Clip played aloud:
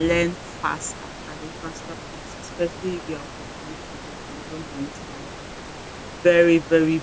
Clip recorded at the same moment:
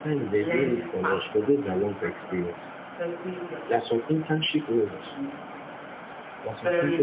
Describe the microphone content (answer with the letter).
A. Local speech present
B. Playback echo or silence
A